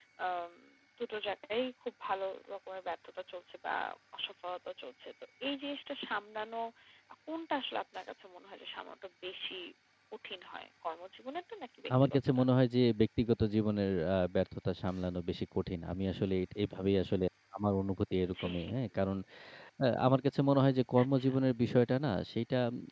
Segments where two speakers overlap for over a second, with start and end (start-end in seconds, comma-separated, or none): none